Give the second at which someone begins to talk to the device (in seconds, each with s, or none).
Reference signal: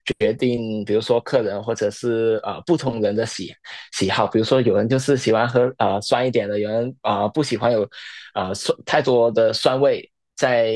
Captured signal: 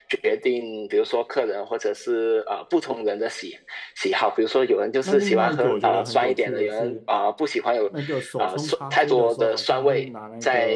5.0 s